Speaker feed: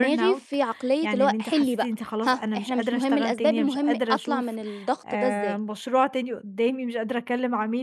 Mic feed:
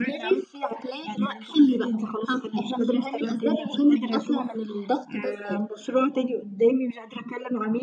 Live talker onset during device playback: none

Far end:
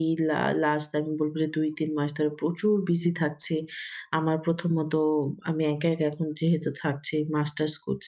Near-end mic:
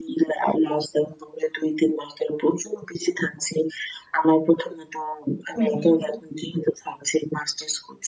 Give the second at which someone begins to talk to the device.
5.5 s

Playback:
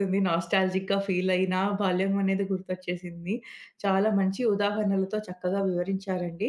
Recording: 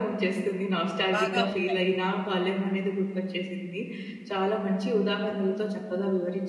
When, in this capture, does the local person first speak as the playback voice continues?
1.2 s

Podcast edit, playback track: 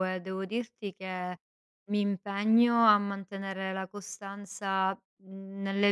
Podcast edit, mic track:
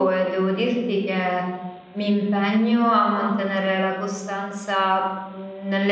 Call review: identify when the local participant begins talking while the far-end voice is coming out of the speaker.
none

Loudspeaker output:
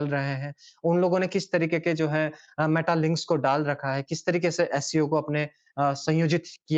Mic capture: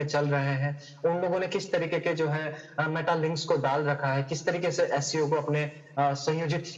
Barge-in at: none

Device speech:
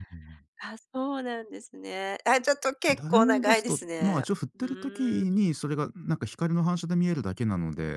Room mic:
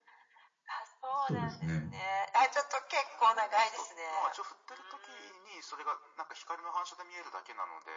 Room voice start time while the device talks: 1.1 s

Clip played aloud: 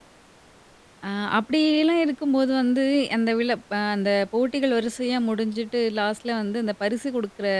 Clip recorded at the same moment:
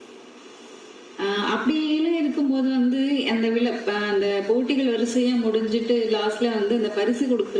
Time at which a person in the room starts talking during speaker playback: none

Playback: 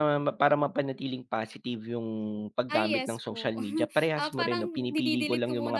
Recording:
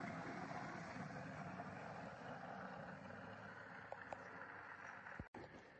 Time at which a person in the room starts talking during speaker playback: none

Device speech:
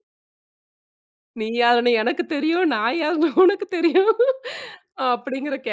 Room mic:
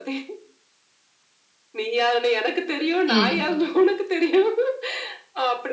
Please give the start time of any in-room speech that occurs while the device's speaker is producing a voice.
3.1 s

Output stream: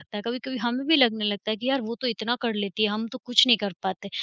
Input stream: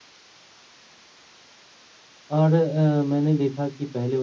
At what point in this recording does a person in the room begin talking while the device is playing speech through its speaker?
2.4 s

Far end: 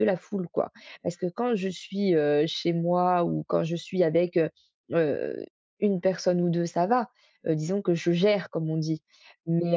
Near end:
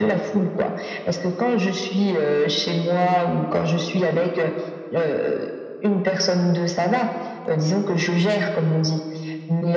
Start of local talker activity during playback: none

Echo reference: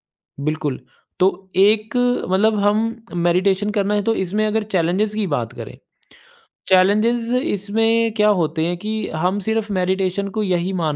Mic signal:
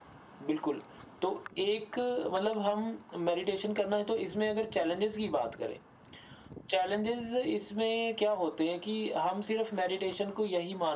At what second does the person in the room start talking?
none

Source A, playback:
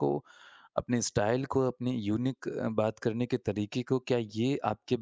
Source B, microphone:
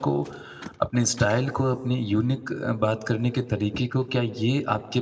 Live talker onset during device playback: none

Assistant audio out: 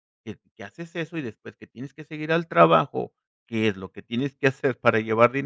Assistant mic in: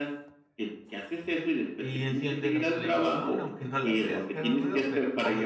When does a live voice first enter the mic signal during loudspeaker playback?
1.8 s

